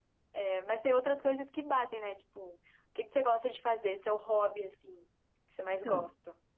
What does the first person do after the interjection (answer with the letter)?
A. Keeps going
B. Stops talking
B